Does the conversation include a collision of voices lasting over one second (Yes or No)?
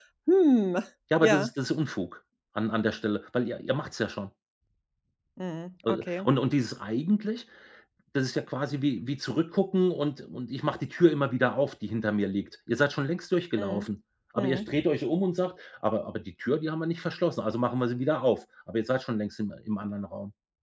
No